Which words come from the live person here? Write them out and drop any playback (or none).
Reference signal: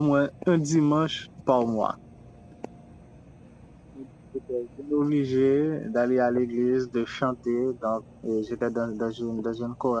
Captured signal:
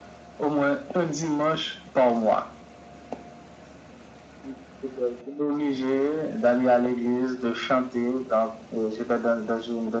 none